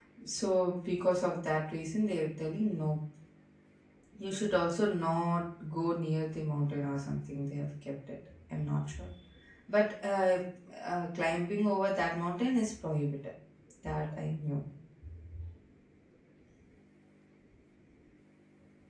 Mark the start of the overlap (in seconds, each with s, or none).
none